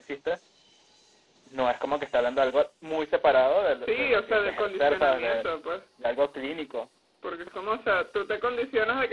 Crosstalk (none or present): present